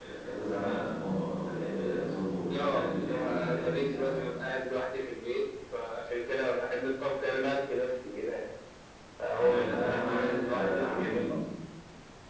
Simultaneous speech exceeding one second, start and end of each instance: 2.5-4.1, 9.3-11.3

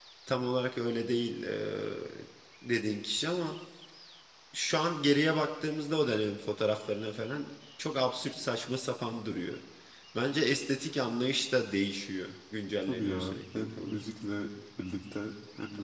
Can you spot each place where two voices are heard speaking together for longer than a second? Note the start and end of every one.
12.8-14.0

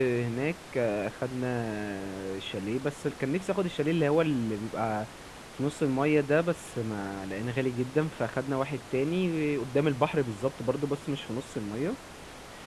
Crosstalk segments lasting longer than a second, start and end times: none

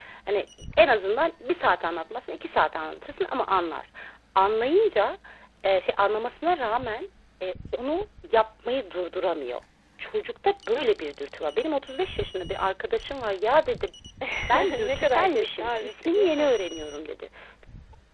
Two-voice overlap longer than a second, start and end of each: 14.8-16.5

